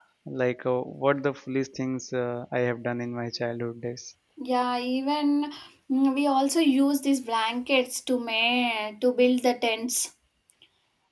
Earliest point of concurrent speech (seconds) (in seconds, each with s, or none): none